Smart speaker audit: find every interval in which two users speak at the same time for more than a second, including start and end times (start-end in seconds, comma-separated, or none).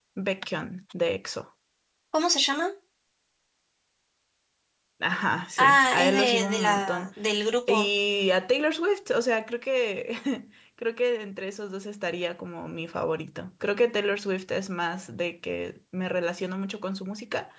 5.6-7.1